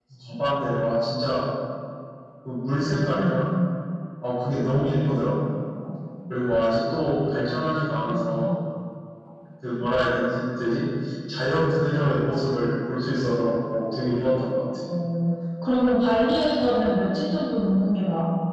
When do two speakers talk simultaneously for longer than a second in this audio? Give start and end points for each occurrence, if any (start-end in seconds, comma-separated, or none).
none